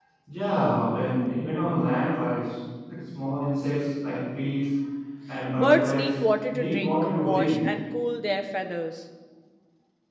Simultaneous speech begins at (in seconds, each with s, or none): 5.6 s